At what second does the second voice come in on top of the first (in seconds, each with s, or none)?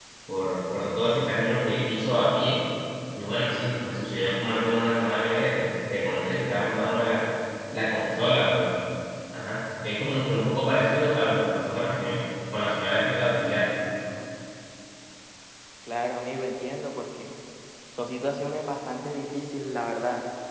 none